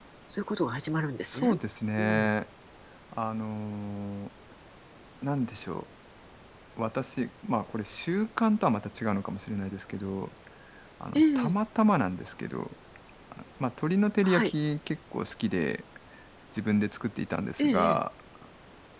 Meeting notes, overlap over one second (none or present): none